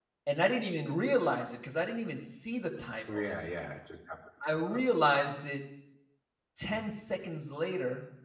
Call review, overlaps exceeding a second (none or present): none